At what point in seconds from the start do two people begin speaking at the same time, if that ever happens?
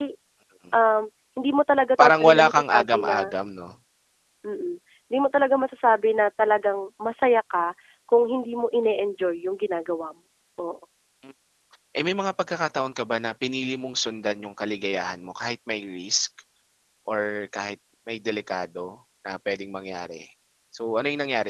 2.0 s

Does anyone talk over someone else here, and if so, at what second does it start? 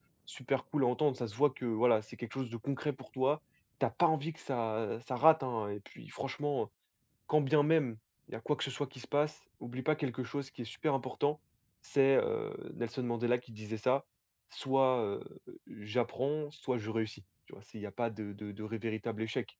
none

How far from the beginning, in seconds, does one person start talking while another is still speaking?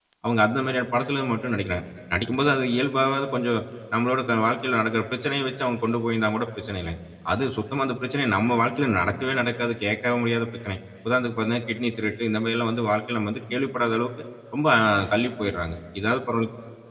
none

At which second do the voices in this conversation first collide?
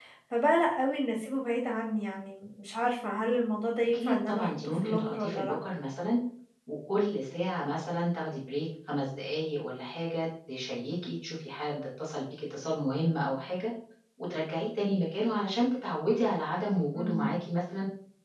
3.9 s

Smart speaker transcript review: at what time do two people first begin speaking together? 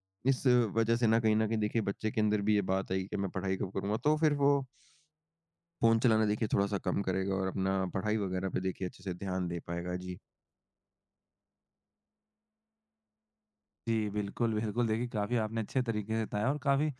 none

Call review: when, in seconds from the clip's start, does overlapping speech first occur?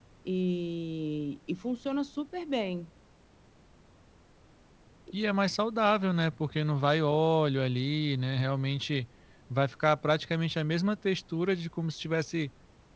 none

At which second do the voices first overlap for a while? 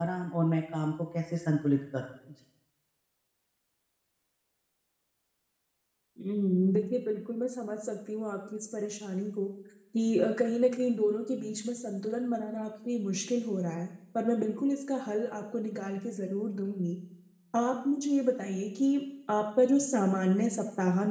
none

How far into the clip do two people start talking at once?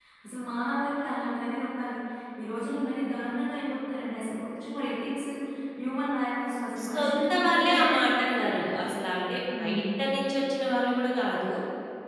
6.9 s

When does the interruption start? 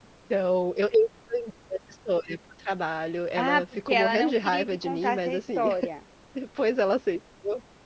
3.4 s

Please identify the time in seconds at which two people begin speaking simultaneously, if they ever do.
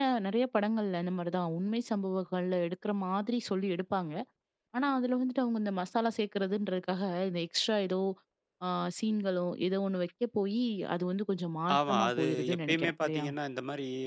11.7 s

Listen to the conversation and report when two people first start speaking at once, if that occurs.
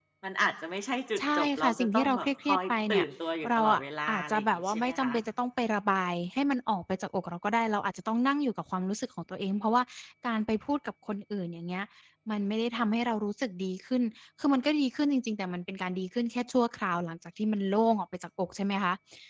1.2 s

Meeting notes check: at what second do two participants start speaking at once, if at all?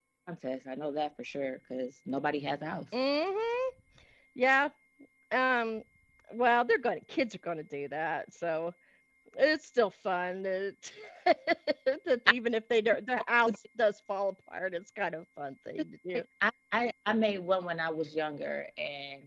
none

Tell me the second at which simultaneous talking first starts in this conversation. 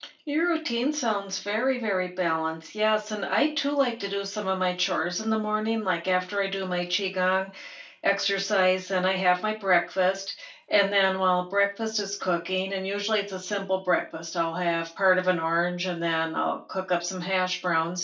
none

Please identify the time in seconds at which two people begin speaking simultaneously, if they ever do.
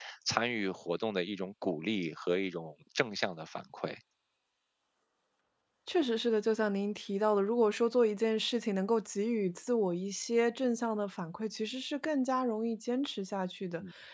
none

